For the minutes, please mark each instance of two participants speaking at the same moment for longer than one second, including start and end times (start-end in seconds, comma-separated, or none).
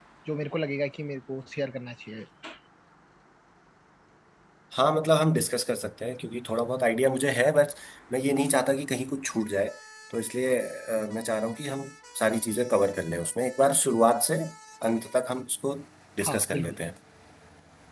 none